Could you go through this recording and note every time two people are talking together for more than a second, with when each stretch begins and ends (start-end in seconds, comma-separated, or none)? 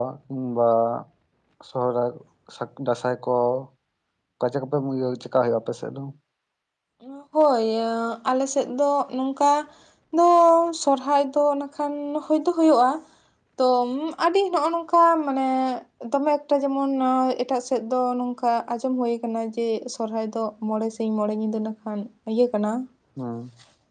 none